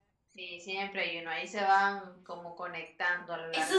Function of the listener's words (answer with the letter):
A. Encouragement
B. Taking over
B